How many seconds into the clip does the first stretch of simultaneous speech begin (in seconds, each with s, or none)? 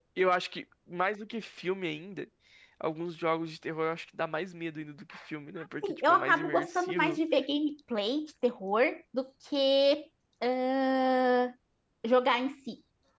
5.8 s